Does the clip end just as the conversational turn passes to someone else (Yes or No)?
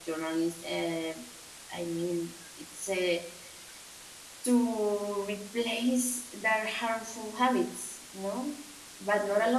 No